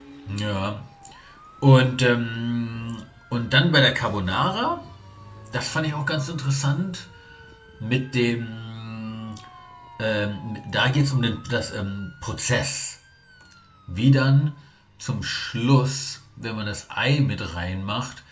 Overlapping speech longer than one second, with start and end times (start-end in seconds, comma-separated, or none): none